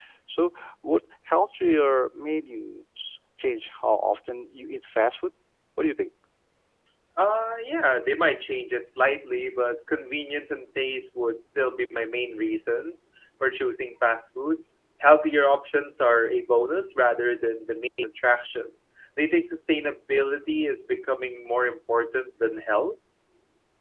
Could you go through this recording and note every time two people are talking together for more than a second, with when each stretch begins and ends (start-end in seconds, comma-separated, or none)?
none